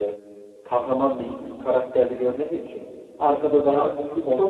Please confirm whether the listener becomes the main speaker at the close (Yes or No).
Yes